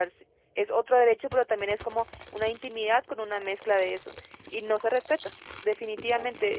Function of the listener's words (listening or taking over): listening